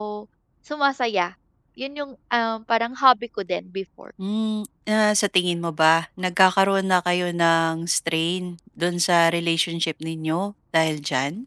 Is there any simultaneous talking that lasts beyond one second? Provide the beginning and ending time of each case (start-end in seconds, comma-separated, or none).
none